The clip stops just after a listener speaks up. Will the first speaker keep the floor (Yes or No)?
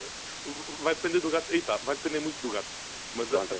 Yes